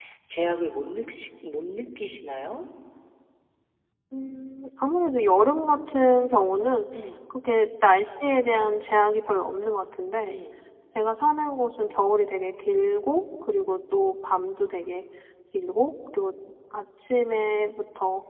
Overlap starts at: none

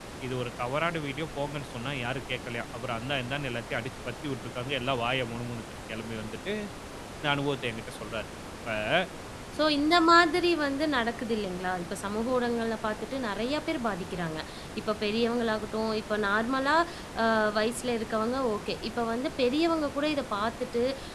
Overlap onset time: none

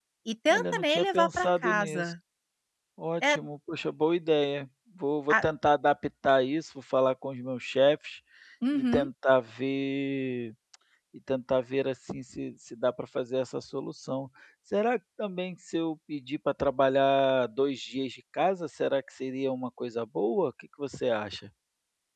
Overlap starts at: 0.5 s

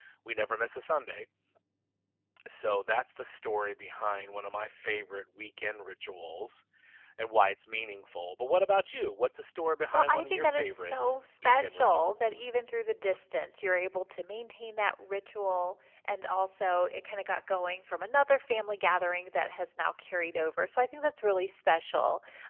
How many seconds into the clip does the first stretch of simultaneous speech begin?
9.9 s

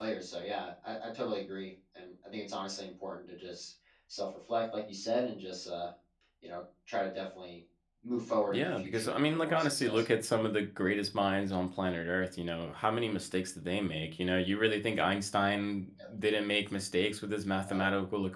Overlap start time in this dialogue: 8.5 s

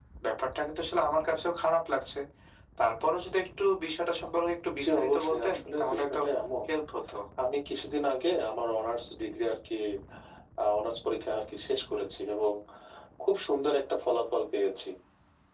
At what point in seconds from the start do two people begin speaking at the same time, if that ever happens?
4.7 s

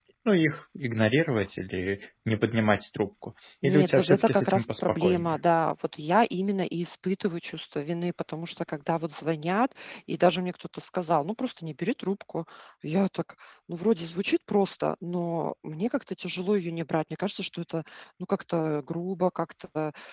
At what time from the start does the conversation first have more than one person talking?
3.6 s

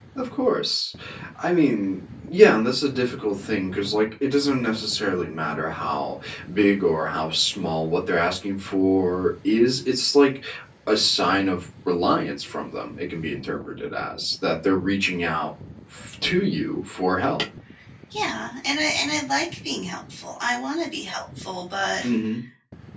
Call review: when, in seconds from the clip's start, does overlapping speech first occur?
none

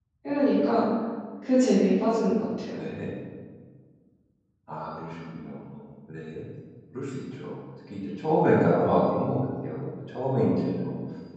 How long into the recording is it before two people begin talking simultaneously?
none

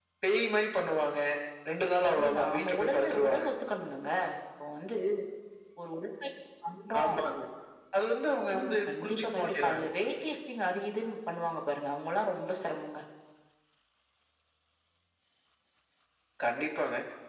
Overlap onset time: 2.1 s

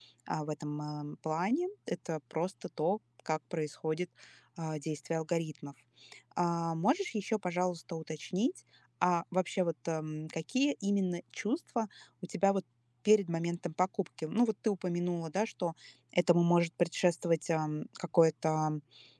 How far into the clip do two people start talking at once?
none

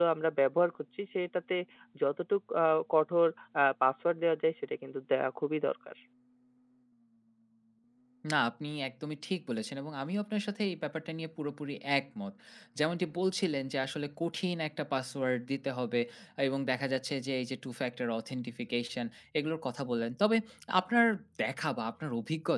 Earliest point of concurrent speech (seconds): none

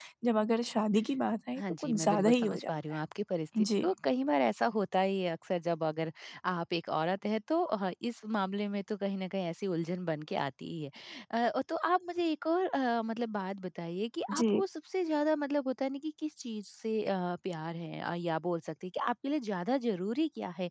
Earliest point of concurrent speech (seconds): 1.6 s

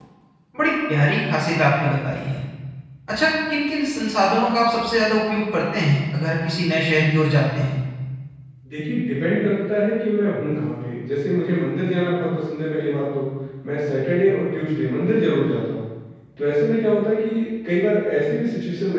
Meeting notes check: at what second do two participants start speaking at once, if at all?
none

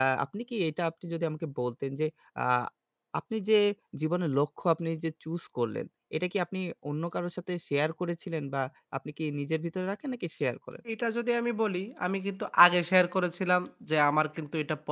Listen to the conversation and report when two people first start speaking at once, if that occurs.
none

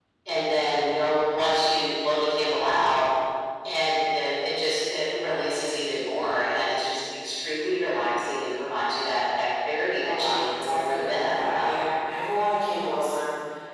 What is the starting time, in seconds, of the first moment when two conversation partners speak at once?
10.0 s

